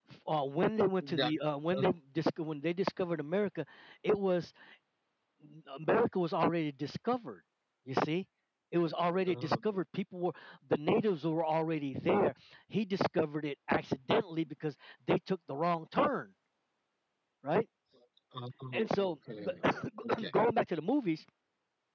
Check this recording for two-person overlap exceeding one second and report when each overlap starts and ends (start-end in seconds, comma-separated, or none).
none